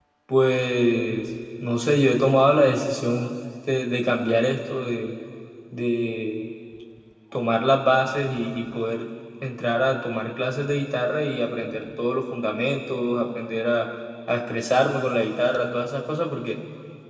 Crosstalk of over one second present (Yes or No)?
No